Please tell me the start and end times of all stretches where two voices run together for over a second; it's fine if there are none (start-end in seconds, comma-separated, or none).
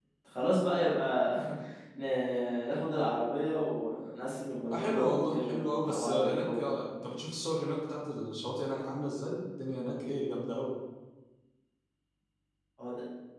4.5-6.6